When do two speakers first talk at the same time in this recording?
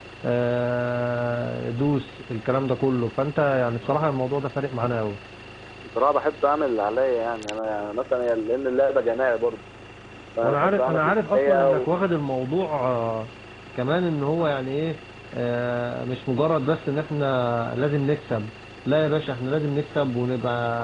10.4 s

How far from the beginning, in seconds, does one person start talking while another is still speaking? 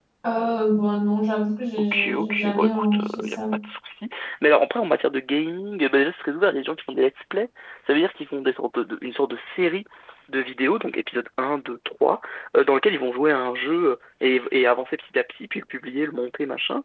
1.8 s

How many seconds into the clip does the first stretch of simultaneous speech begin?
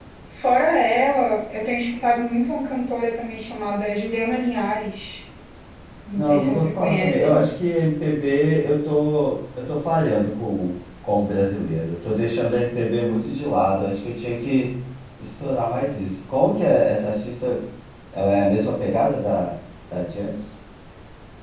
6.2 s

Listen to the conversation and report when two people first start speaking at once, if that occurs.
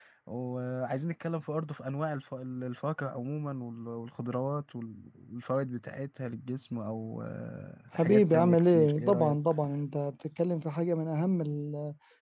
8.0 s

